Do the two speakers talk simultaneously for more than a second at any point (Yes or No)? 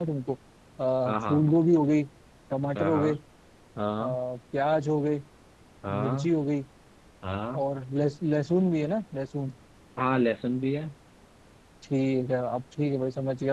No